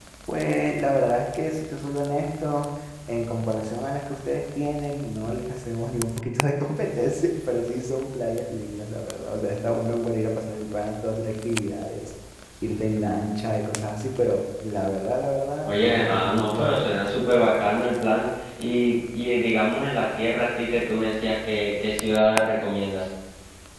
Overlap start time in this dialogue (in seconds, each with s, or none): 15.7 s